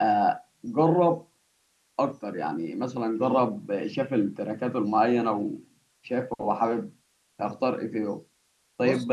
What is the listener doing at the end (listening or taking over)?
listening